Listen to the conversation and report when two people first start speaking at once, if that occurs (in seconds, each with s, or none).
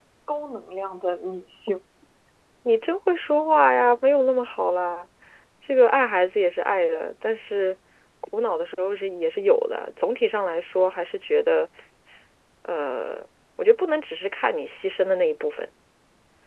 none